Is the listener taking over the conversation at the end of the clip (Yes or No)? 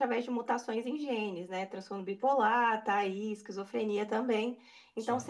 No